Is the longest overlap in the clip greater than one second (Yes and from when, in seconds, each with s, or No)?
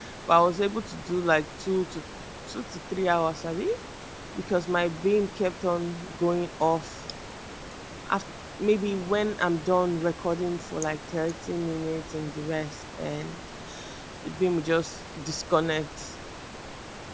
No